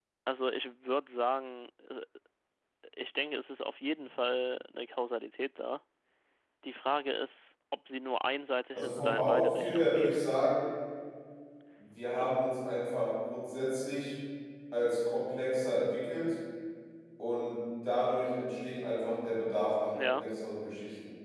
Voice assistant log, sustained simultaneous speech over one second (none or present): present